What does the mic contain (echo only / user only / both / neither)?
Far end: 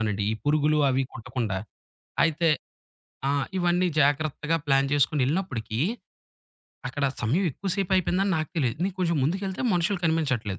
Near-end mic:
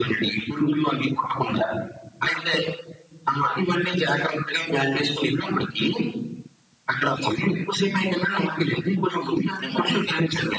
echo only